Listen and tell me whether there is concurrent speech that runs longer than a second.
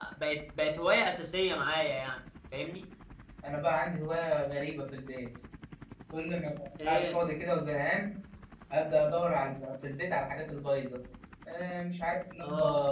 No

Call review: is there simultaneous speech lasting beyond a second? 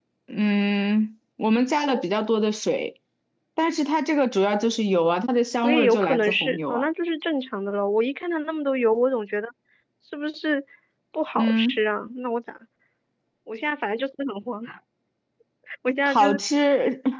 Yes, from 5.6 s

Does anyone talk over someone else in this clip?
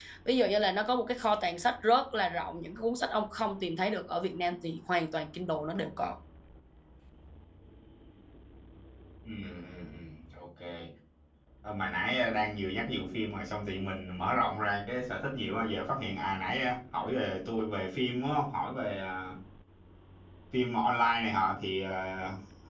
No

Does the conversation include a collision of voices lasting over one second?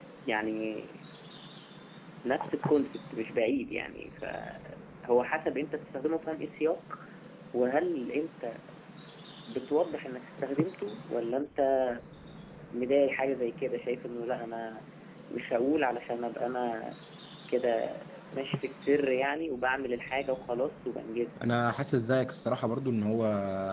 No

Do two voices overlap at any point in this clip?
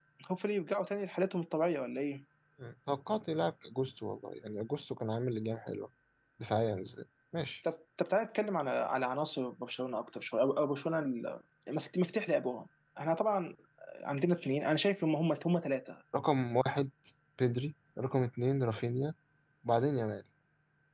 No

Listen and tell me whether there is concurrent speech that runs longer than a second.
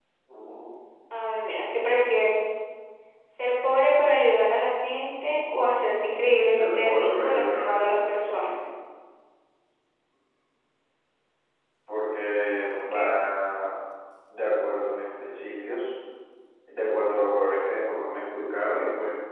Yes, from 6.5 s

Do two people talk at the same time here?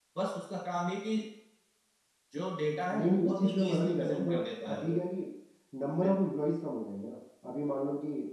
Yes, from 2.9 s

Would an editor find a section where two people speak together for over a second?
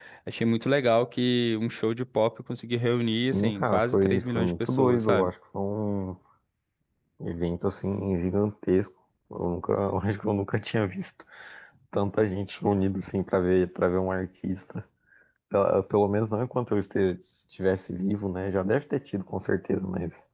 Yes, from 3.3 s

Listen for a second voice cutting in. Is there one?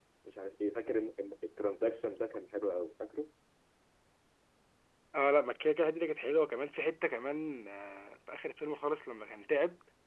No

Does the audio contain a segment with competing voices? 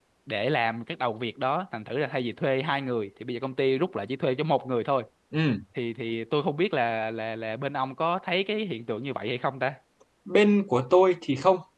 No

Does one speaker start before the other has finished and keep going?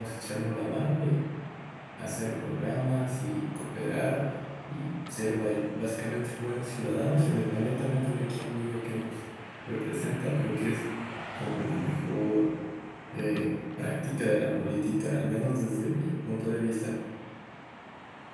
No

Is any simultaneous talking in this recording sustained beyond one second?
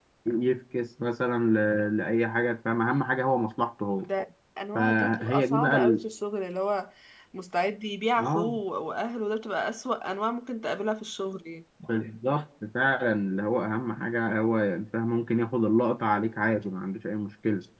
Yes, from 4.8 s

